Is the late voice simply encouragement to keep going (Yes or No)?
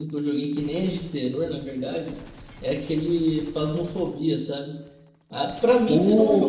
Yes